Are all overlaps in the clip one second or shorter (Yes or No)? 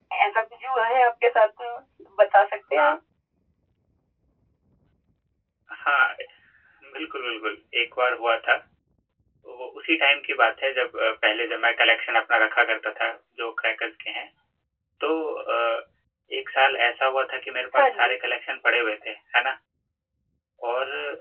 Yes